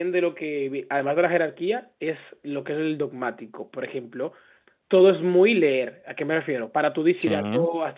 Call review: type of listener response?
listening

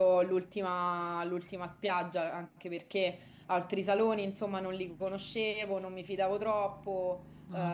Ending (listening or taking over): listening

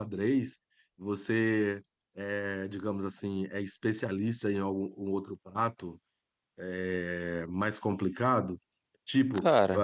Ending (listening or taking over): listening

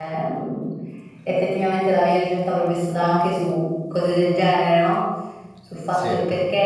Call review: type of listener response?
listening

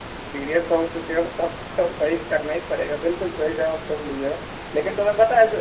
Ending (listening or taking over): listening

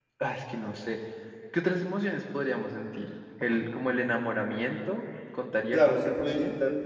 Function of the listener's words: taking over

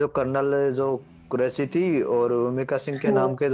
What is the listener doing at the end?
listening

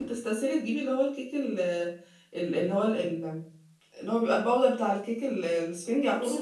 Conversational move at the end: taking over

